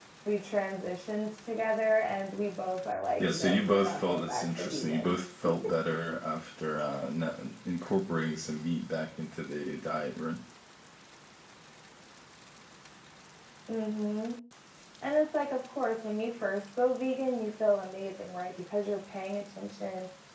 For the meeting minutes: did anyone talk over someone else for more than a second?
Yes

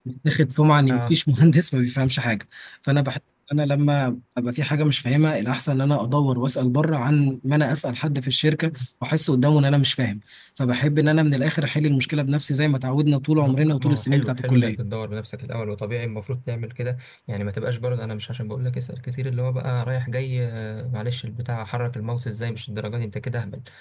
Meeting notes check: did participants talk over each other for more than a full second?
Yes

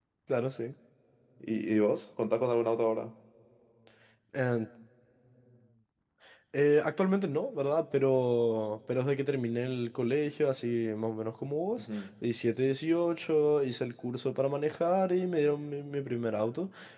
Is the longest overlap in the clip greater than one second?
No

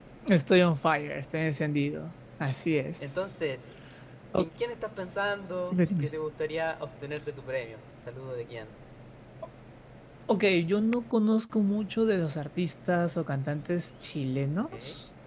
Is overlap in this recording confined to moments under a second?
Yes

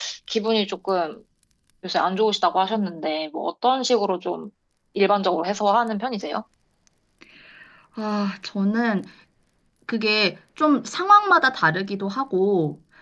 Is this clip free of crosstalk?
Yes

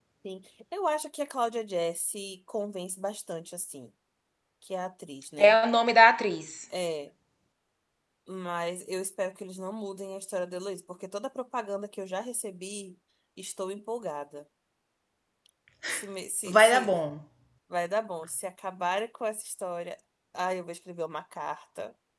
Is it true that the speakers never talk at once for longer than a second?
Yes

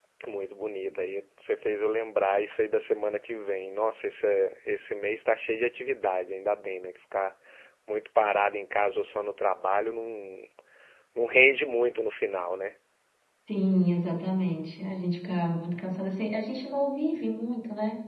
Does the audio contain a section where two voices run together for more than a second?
No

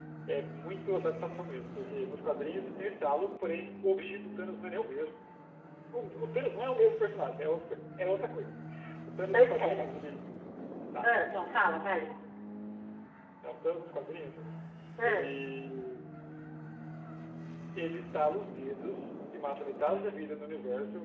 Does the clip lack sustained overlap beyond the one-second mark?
Yes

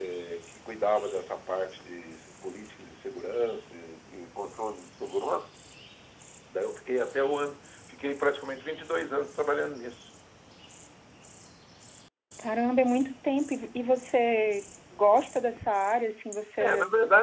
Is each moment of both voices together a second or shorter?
Yes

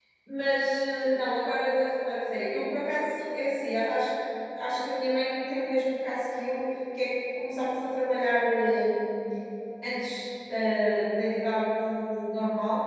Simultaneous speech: No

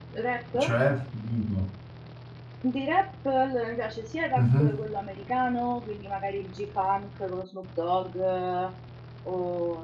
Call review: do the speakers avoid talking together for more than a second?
Yes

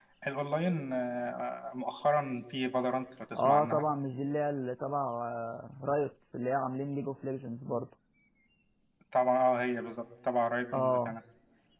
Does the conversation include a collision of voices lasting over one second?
No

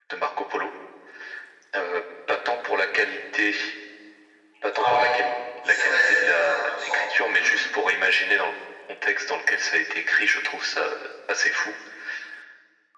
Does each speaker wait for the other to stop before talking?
No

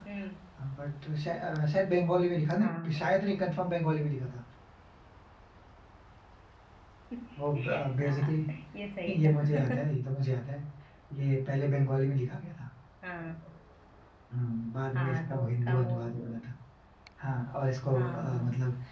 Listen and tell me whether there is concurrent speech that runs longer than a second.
Yes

